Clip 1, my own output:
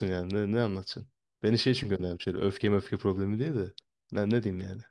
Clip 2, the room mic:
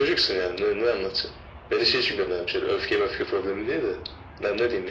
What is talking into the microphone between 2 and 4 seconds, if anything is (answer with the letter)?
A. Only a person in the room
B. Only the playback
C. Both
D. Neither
B